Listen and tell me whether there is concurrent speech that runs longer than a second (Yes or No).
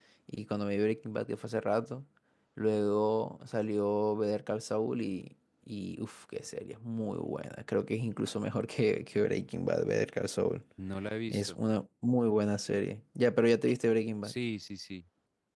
No